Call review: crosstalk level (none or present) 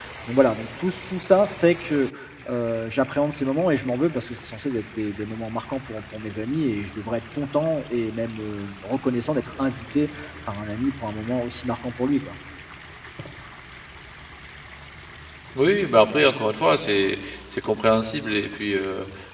none